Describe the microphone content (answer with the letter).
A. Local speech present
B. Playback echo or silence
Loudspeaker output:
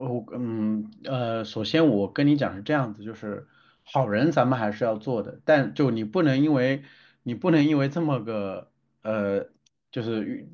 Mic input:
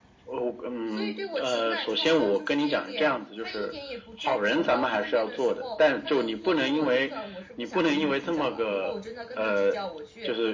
A